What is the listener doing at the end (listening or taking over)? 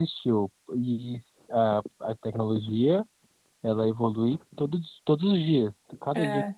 listening